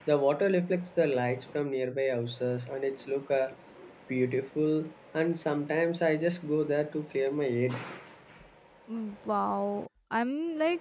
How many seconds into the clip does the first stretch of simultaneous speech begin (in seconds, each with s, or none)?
none